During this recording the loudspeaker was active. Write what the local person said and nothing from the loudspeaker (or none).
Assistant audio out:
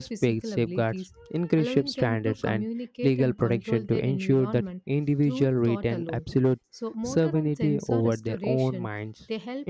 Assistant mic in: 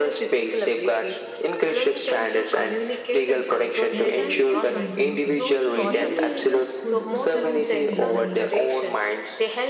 enhanced contention. So, BCIS could accelerate learning,